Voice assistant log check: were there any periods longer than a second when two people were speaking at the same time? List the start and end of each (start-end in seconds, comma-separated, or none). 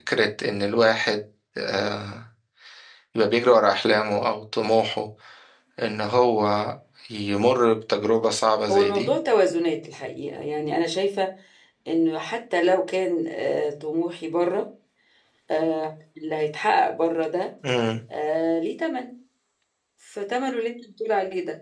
none